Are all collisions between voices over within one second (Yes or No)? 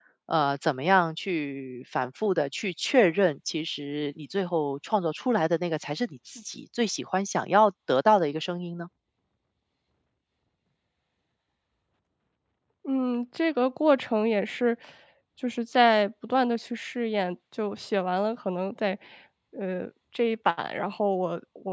Yes